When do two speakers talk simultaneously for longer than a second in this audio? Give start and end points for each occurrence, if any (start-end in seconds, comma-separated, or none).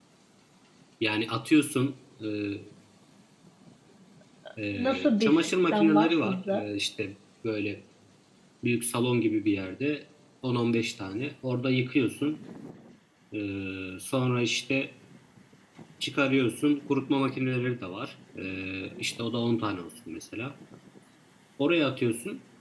4.7-6.6